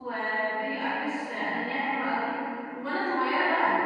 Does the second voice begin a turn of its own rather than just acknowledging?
No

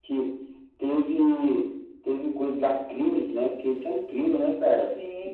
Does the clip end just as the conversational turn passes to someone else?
Yes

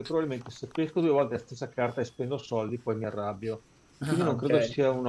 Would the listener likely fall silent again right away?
Yes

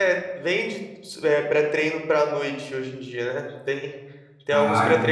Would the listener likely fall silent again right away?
Yes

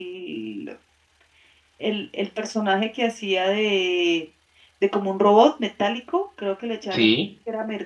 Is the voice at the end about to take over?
No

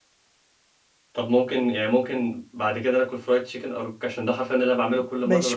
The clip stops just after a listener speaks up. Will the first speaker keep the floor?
No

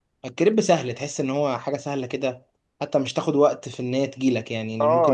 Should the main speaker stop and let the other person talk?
Yes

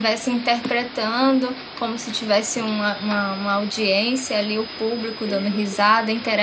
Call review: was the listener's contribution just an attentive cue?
Yes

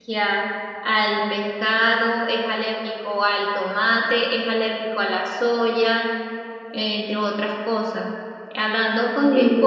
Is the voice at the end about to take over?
No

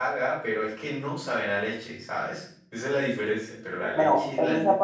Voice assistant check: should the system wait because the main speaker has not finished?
No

